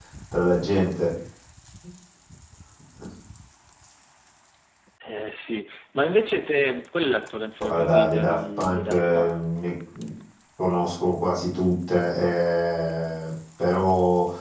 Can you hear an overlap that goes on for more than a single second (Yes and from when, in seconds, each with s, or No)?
Yes, from 7.6 s